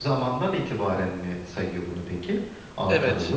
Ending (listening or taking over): taking over